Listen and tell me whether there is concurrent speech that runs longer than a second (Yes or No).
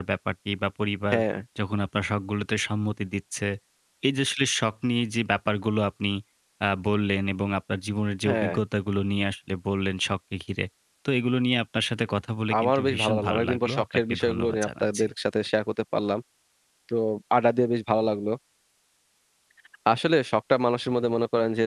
Yes